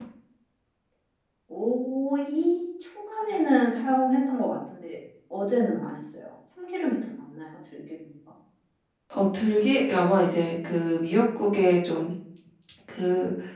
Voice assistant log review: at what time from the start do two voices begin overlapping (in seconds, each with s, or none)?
none